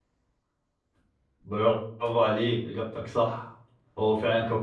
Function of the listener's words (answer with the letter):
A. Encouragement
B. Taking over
A